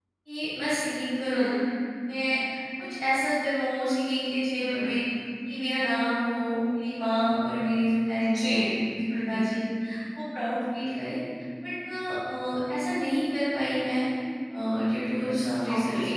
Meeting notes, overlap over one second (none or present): none